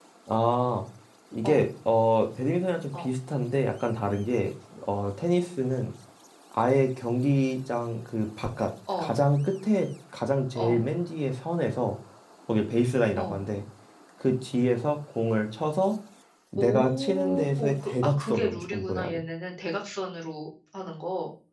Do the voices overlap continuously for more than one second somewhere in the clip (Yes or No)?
Yes